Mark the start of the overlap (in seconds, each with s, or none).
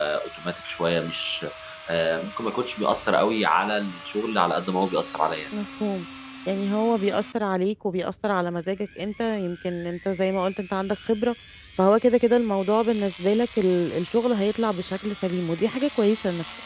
none